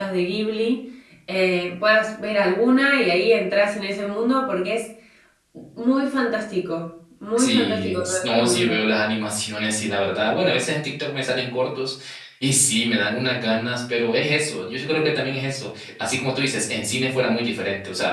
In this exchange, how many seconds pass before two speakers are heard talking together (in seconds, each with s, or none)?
7.4 s